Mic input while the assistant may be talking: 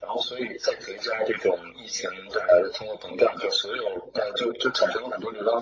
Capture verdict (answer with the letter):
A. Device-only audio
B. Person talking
A